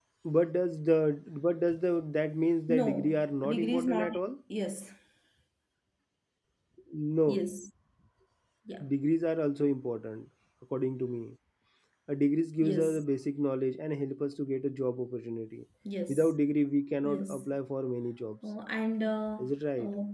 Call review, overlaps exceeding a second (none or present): present